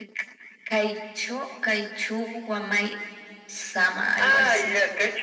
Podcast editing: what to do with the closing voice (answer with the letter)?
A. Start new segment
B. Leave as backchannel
A